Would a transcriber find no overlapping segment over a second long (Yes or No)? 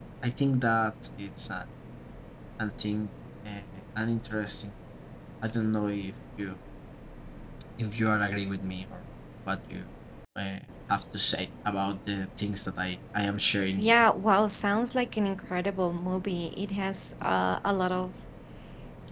Yes